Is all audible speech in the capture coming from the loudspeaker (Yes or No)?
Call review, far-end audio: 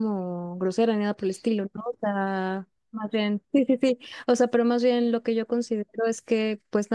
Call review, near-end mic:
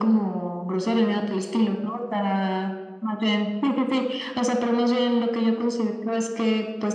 Yes